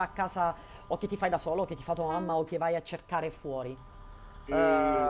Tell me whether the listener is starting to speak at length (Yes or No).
Yes